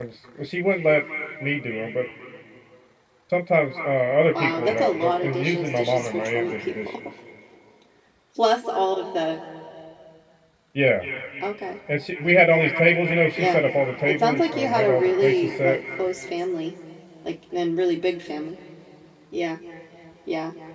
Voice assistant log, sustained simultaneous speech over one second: present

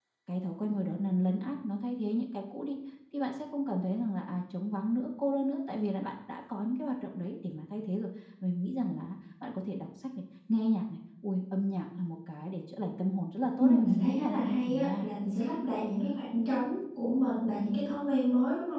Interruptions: present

